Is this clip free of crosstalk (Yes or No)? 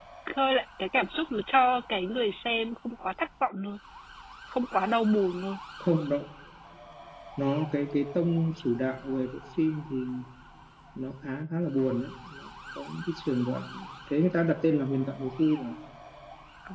Yes